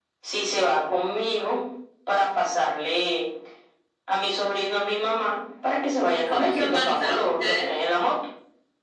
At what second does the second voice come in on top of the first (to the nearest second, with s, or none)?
6 s